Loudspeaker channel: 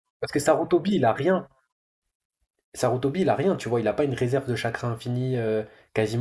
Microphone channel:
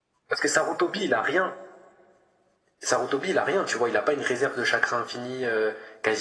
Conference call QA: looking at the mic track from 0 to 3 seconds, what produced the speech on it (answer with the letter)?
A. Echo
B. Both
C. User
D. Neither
A